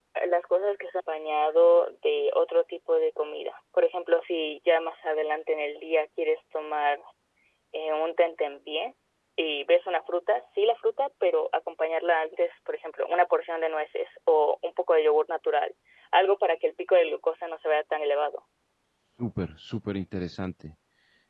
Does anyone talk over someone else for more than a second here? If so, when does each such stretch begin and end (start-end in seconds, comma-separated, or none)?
none